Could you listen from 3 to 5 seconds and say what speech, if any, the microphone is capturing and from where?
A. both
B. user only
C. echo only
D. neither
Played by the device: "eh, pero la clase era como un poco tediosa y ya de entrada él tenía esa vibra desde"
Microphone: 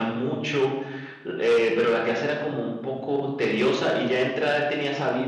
C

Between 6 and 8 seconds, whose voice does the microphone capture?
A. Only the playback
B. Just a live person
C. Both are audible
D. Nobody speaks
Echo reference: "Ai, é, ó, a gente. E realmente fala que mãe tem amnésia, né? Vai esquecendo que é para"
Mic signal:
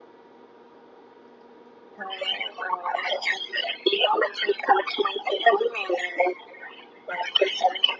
A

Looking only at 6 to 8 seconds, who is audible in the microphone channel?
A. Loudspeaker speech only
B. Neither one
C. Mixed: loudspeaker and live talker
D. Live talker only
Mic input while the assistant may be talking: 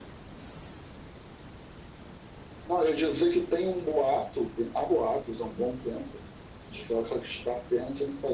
A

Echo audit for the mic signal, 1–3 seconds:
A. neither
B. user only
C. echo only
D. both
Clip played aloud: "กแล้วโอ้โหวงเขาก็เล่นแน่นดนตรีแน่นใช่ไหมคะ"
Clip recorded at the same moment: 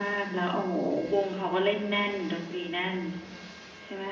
C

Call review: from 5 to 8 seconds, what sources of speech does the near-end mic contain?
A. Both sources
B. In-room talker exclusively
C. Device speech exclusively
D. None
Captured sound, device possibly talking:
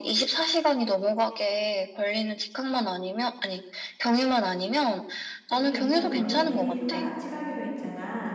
A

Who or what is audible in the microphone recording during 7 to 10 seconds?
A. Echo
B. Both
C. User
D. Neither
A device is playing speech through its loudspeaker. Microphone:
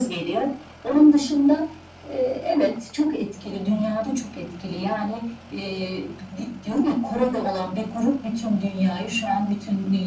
A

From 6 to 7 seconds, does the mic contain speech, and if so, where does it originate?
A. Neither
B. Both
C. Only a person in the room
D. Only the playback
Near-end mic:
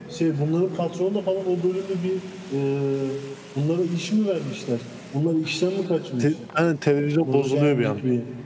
B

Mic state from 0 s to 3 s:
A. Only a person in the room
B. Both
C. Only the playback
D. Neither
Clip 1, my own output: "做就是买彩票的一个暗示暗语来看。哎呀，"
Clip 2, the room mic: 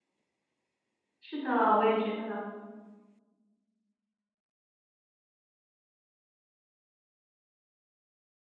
A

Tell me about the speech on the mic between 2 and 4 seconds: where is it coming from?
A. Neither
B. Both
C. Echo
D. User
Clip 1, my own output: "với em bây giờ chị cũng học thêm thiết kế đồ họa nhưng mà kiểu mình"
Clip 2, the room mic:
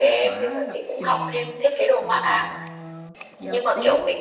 B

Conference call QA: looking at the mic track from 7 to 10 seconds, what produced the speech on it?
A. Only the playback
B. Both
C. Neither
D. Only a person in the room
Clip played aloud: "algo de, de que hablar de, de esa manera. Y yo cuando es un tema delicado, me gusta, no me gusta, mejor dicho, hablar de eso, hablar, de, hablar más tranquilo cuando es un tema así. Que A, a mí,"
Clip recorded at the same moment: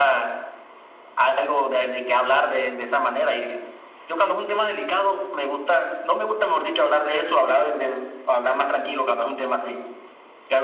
A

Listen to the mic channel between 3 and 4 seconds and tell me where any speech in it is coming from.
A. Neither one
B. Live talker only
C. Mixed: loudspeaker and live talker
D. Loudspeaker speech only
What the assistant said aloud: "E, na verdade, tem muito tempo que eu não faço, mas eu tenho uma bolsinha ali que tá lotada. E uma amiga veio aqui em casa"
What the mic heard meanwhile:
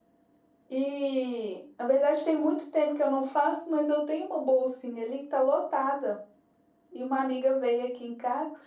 D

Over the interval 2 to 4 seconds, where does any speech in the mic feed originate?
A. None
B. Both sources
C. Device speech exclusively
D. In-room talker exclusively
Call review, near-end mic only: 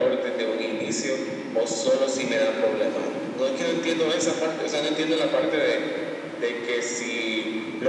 C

